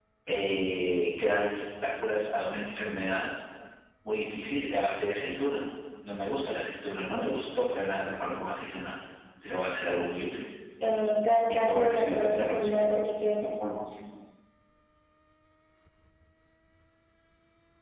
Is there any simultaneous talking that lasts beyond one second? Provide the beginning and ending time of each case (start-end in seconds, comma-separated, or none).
11.4-12.9